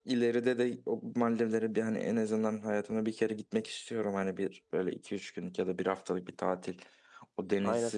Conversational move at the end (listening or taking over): listening